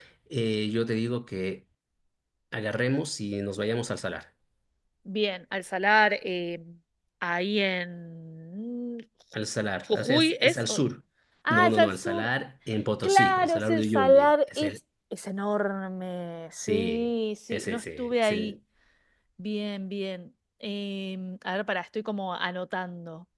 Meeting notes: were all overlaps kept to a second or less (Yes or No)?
No